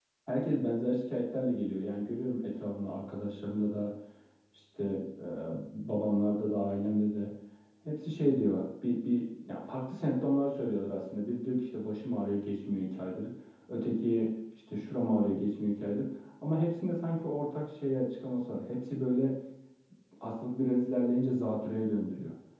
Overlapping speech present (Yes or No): No